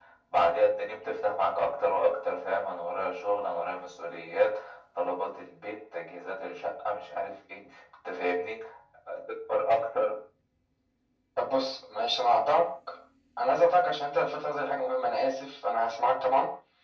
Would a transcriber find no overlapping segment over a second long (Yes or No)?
Yes